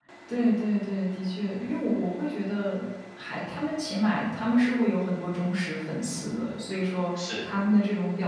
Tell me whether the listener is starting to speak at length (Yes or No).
No